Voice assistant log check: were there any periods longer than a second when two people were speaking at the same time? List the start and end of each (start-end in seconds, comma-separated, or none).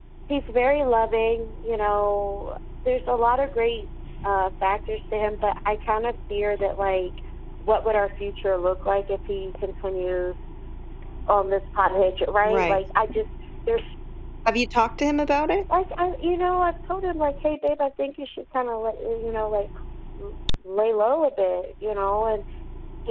none